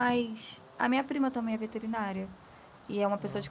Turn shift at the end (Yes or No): No